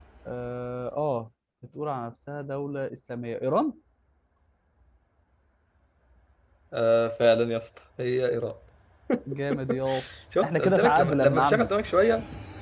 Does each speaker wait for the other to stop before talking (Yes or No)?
No